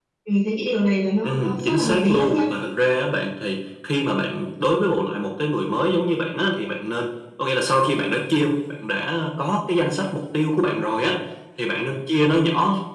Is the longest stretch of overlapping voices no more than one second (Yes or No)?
No